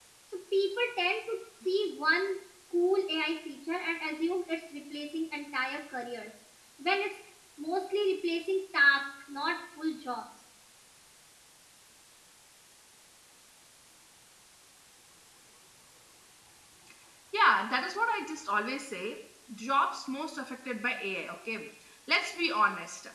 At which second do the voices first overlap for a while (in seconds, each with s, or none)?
none